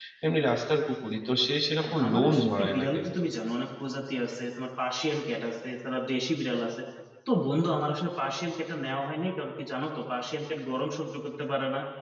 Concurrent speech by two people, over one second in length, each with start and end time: 1.8-3.2

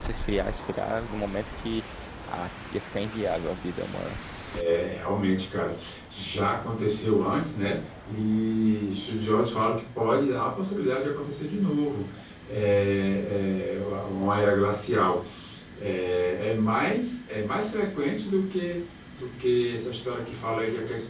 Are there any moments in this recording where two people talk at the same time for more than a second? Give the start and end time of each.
none

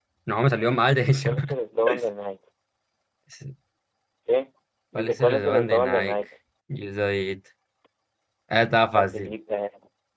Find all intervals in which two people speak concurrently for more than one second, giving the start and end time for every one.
5.0-6.2

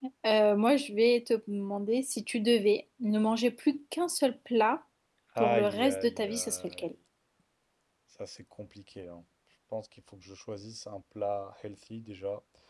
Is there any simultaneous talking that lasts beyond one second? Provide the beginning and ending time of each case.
5.4-6.8

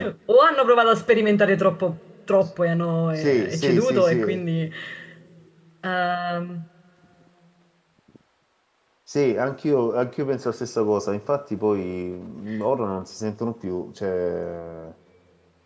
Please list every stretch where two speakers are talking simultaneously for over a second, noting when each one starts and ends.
3.2-4.5

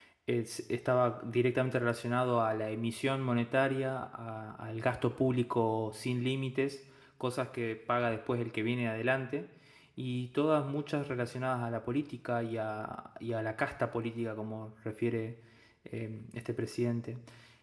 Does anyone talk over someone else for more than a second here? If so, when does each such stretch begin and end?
none

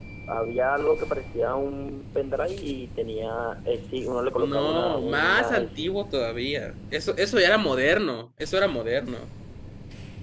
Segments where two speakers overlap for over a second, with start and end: 4.4-5.8

